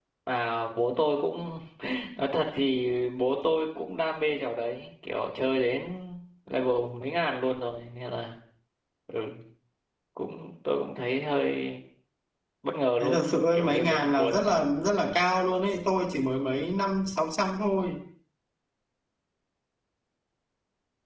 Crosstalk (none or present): present